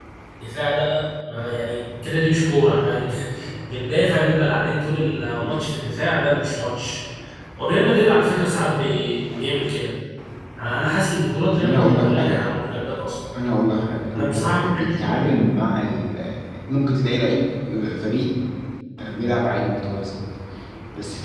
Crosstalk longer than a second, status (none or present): present